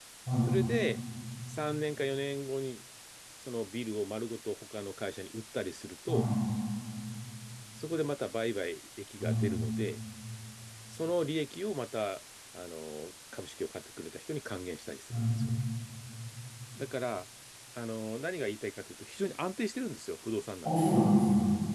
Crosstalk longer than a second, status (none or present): none